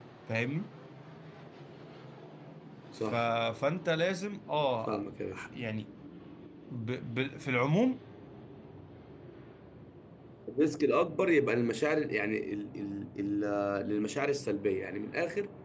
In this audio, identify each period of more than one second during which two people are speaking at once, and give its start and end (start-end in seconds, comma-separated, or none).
none